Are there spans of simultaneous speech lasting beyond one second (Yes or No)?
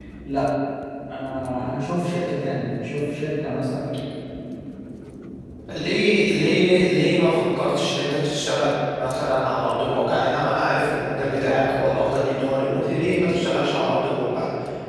No